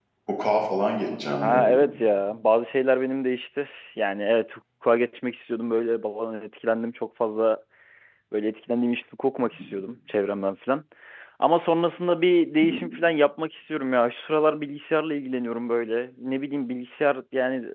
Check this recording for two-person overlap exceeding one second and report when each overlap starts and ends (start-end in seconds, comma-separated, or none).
none